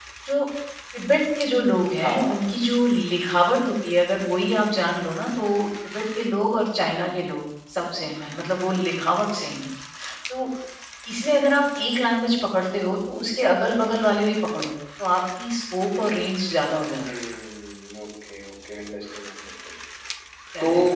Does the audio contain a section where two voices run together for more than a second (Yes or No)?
No